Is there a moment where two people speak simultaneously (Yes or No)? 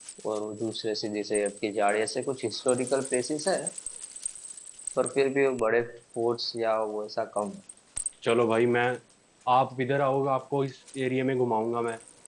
No